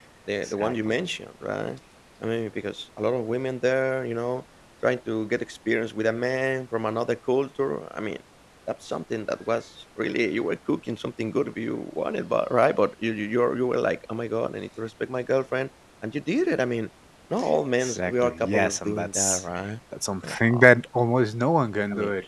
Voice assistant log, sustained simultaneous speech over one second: present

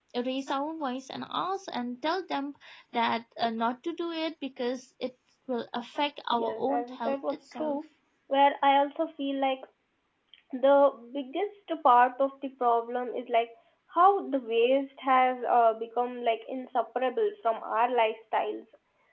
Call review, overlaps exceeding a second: present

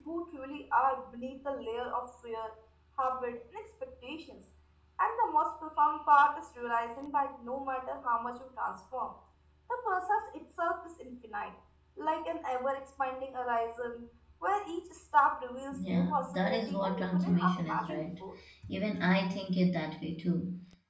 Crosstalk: present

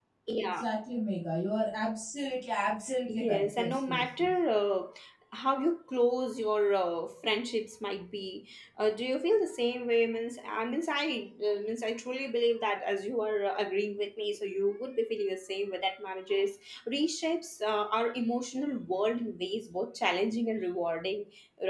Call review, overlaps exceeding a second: present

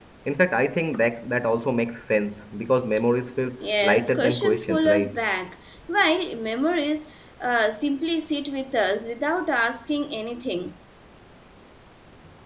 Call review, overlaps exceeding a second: present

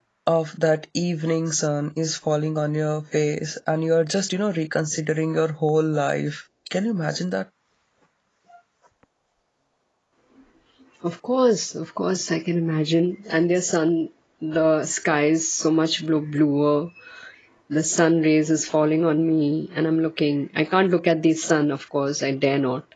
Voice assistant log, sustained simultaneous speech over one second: none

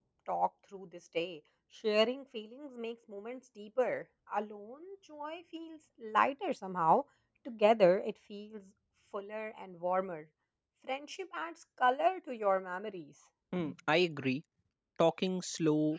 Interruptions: none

